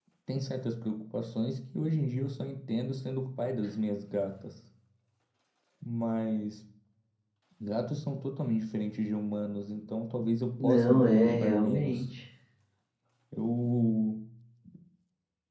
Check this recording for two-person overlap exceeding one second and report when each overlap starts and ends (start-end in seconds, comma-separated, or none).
10.6-12.1